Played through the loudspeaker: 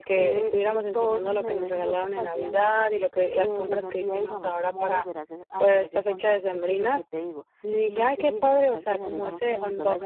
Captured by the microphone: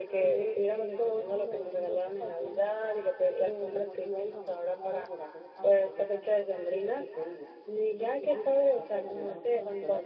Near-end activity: none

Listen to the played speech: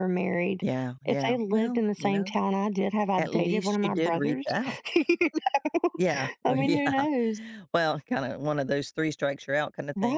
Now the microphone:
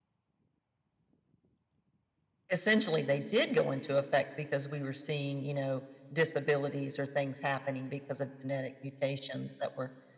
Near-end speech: present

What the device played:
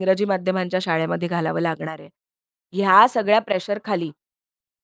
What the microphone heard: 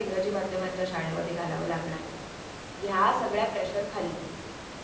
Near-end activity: none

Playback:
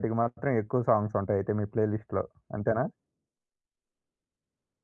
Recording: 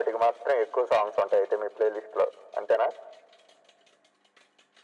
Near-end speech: none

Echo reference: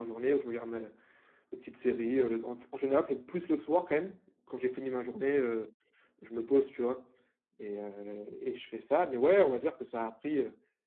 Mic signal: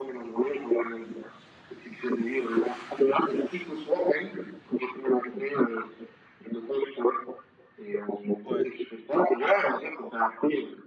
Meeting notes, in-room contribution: present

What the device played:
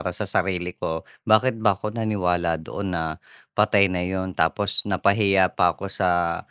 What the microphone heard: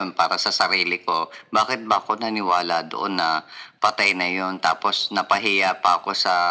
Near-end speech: none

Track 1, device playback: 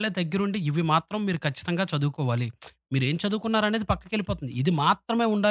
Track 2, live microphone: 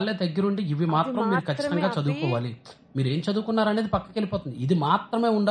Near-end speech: present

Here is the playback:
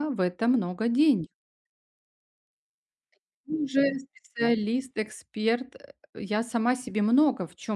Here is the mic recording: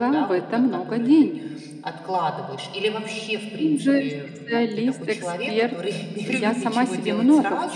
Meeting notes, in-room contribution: present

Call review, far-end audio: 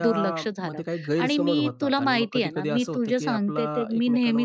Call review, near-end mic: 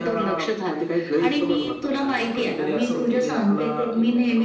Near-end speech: none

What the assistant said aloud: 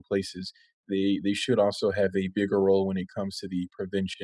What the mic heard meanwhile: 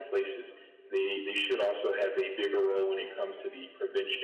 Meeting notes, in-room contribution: none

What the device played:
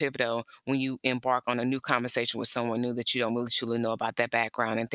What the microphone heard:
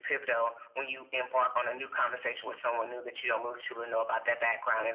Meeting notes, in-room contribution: none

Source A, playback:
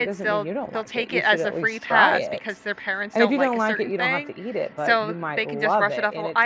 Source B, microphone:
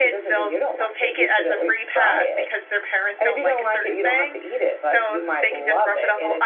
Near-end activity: none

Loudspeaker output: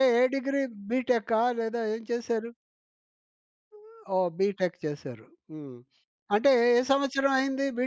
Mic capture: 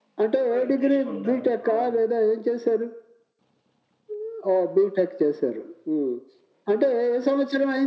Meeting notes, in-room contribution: present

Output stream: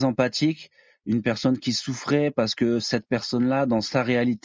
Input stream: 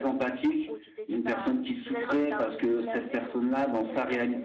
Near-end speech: present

